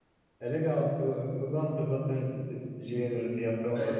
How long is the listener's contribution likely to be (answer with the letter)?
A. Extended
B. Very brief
A